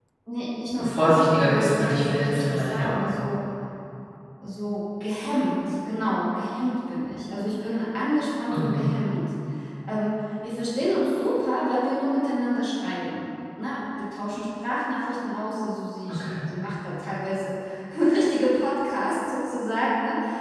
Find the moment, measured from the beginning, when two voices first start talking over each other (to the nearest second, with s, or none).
1 s